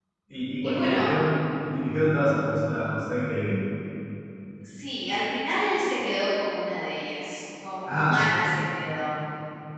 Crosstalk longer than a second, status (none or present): none